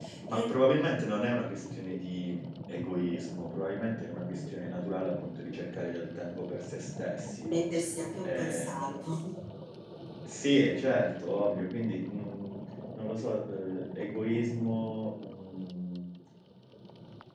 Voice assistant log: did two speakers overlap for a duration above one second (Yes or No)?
No